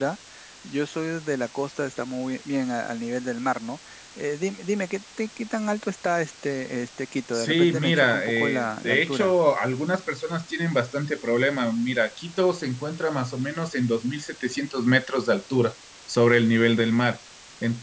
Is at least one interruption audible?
Yes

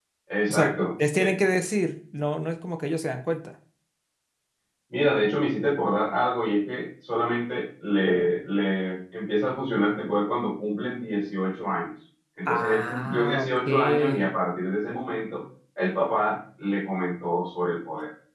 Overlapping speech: Yes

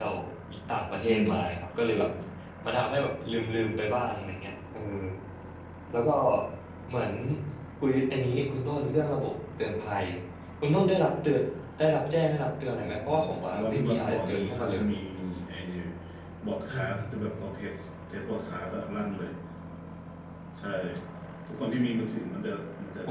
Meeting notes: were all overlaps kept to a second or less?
No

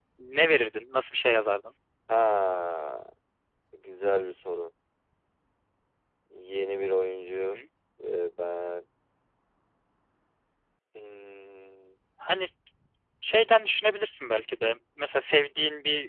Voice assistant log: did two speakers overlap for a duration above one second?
No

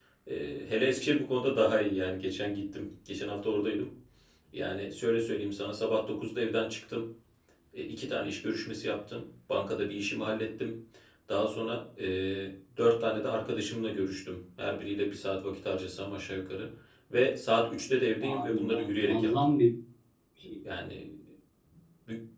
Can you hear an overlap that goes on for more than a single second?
Yes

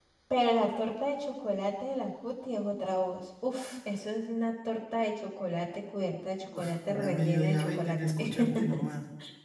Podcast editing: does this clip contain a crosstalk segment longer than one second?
Yes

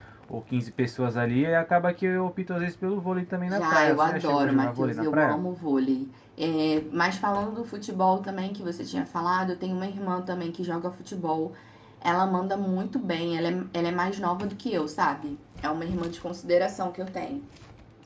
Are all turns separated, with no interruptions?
No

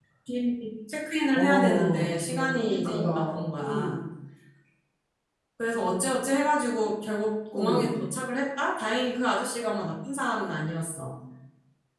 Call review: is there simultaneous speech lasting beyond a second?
Yes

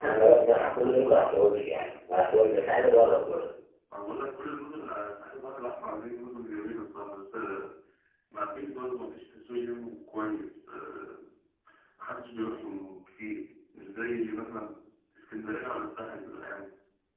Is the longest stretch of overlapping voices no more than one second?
No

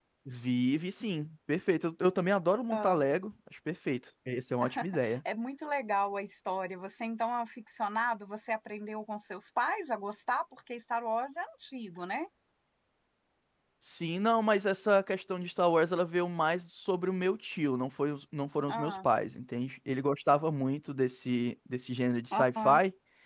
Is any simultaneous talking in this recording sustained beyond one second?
No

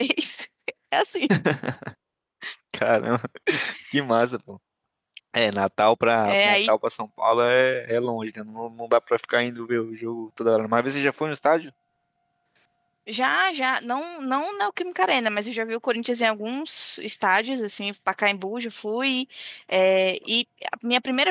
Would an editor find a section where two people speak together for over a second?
No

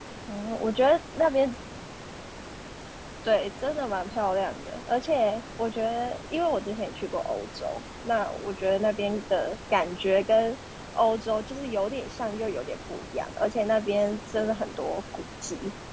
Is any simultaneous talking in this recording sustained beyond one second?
No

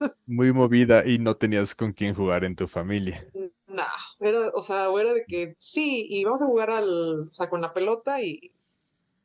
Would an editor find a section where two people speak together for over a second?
No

